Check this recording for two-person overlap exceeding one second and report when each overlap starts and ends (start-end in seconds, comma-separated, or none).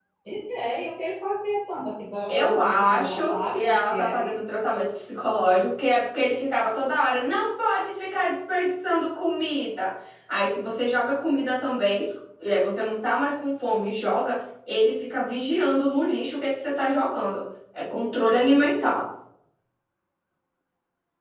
2.3-4.4